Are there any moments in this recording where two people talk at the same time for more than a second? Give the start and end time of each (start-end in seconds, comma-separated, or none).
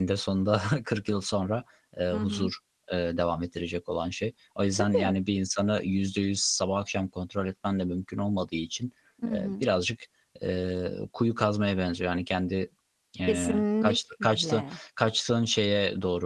13.3-14.6